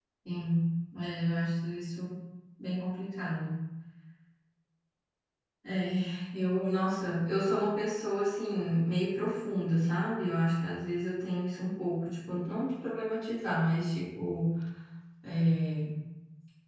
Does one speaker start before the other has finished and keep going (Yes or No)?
No